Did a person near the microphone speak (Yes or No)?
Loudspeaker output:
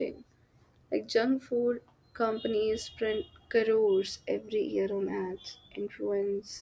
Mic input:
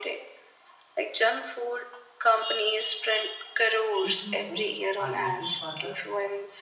Yes